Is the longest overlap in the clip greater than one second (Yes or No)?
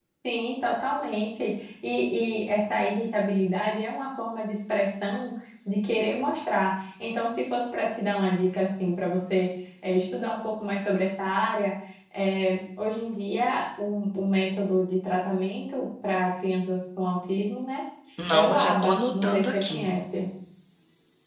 Yes